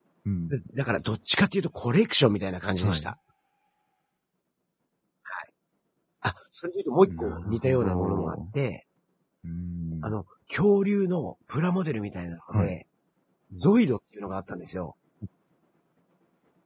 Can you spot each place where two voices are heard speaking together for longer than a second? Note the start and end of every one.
7.1-8.4

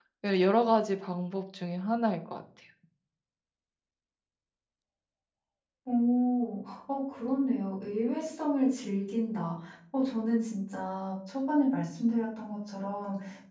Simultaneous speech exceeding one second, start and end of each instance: none

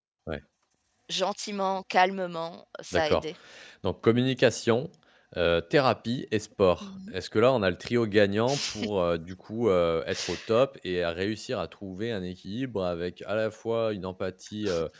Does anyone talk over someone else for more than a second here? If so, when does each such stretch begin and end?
none

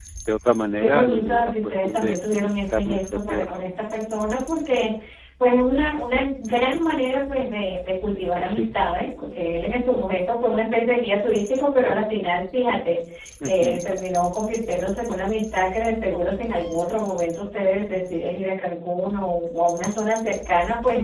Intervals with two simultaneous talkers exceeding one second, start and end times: 0.8-3.5

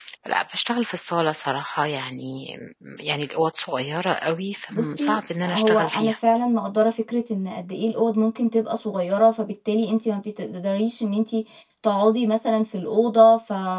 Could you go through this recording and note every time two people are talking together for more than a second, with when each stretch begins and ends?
4.7-6.1

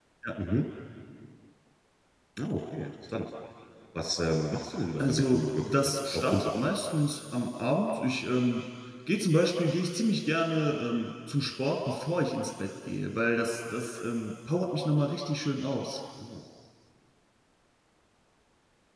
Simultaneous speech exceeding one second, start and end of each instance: 5.0-6.8

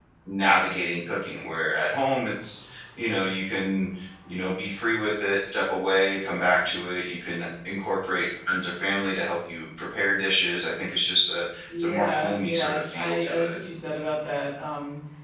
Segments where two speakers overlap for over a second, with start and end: 11.8-13.6

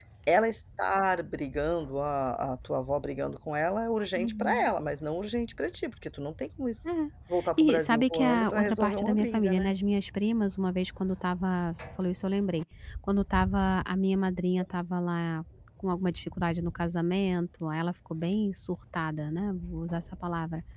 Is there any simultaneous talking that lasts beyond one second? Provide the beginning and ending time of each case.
7.6-9.7

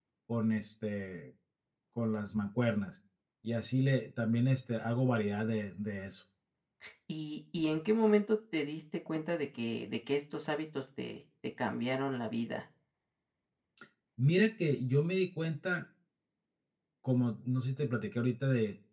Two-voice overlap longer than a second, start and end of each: none

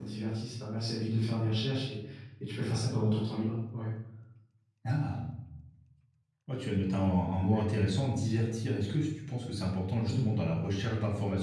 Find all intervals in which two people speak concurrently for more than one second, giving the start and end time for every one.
none

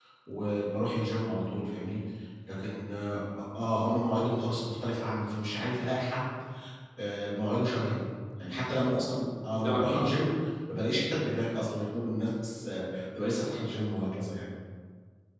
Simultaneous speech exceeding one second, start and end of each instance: none

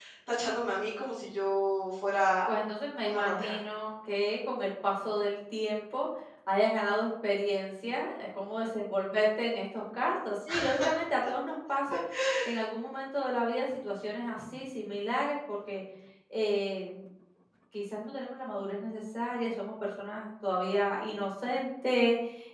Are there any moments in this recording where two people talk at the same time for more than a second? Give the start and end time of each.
none

